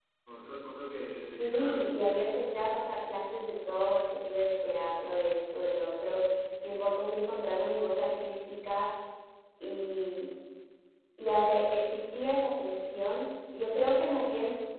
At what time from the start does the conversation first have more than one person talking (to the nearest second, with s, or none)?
1 s